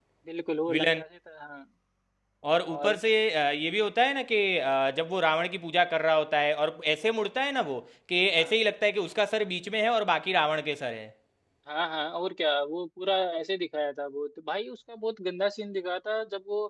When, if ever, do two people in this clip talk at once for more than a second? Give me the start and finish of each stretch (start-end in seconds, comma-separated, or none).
none